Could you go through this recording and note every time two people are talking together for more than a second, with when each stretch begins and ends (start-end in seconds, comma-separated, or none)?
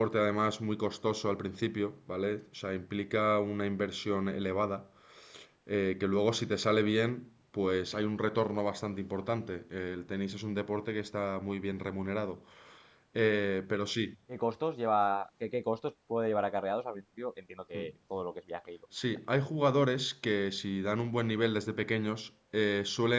none